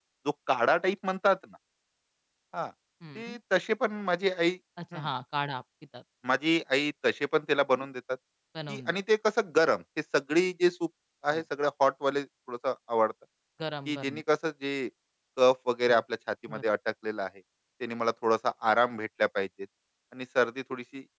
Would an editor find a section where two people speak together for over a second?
No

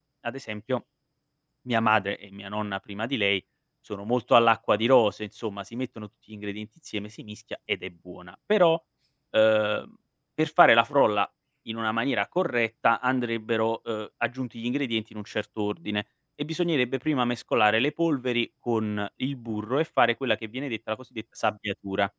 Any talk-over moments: No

